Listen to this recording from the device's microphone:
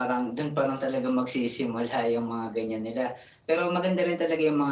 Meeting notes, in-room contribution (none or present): none